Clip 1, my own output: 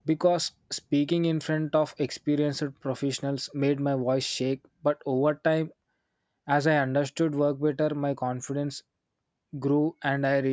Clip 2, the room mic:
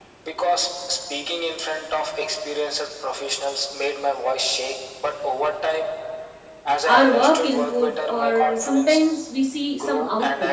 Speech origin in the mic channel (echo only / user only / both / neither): both